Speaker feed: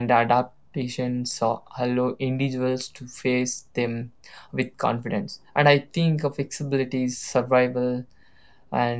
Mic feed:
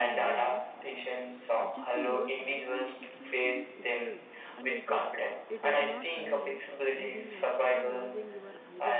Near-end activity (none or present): present